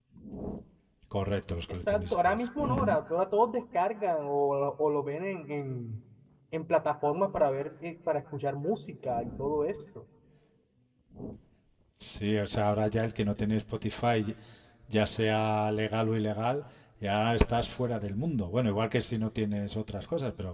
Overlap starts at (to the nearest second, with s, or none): 2 s